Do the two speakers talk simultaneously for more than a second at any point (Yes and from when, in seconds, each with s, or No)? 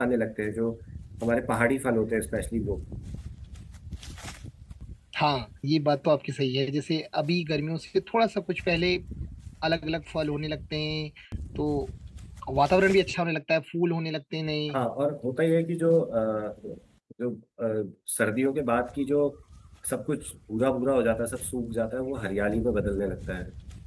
No